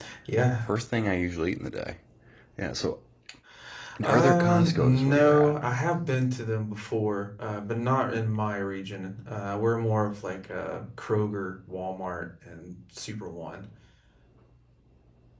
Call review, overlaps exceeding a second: present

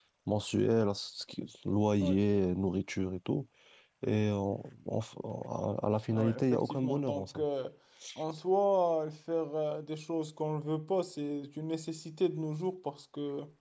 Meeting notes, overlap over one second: present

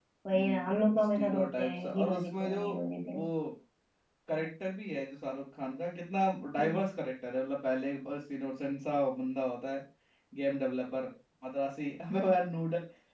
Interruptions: present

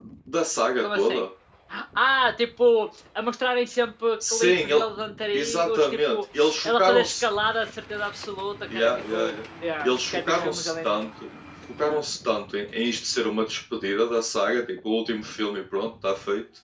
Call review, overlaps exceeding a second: present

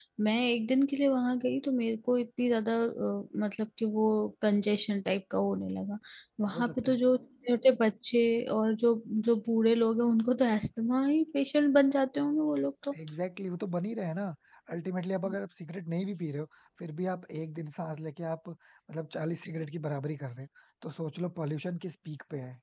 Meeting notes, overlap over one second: none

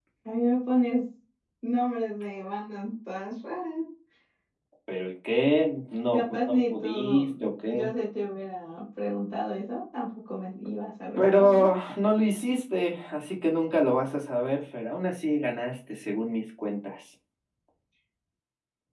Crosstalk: present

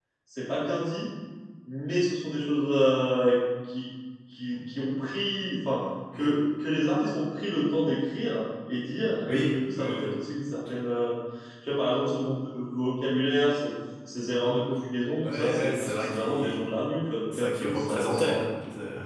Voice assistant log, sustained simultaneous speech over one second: present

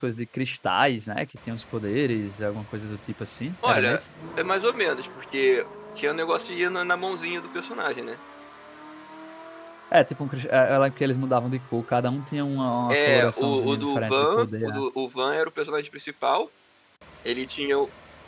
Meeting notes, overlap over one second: present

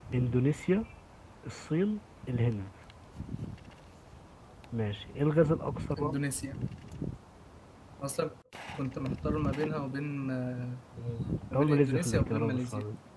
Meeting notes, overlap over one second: present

